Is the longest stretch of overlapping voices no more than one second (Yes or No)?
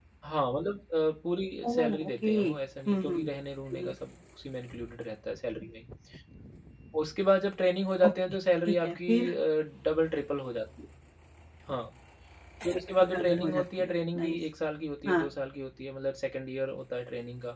No